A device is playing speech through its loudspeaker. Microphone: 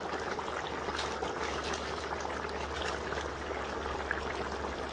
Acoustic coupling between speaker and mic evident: No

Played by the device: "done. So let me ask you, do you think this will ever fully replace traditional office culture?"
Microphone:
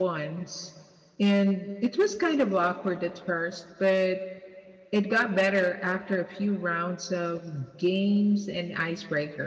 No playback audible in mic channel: Yes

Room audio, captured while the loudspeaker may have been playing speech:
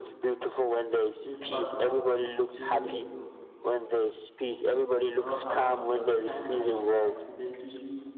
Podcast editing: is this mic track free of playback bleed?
No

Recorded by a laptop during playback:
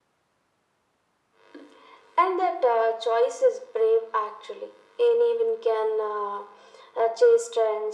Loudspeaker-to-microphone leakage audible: Yes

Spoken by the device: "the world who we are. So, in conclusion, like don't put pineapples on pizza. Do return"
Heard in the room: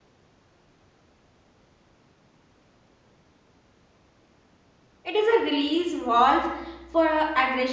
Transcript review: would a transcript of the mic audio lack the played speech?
Yes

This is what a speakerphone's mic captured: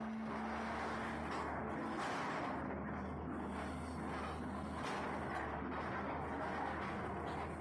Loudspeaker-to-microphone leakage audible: No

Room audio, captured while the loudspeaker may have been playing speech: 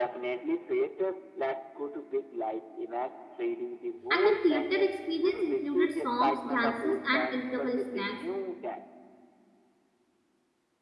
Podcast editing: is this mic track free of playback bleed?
No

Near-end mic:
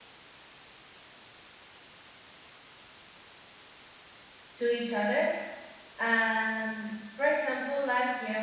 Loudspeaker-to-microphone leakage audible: No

